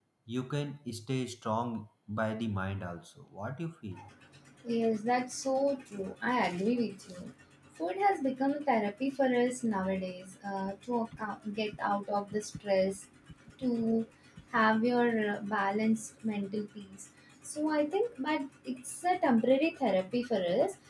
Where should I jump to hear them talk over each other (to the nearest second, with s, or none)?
none